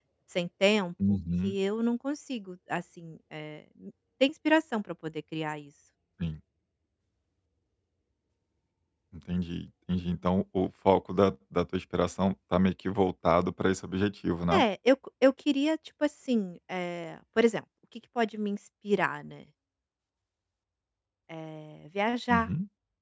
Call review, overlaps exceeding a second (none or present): none